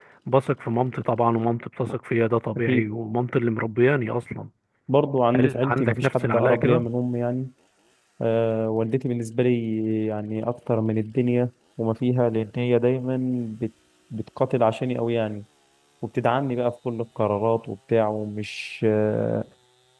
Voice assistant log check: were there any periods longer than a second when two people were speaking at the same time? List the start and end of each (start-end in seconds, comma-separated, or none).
5.4-6.8